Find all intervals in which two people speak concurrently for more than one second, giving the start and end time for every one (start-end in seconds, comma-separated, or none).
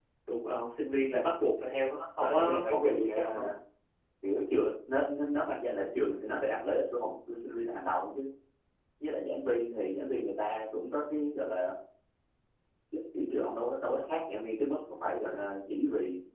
2.2-3.4